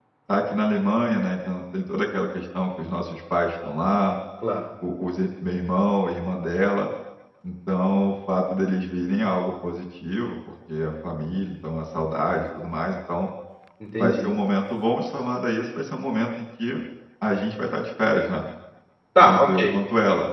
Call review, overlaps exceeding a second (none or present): none